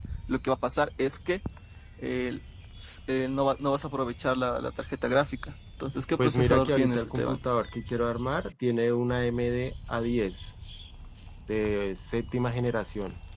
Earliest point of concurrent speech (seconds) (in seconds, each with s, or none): 6.2 s